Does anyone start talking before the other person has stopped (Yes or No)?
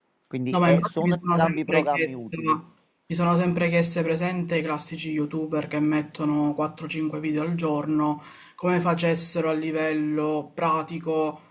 Yes